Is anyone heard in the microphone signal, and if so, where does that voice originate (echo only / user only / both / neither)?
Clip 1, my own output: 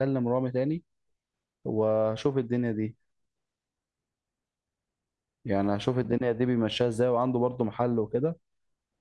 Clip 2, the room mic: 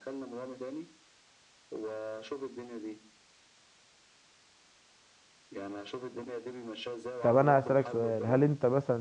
both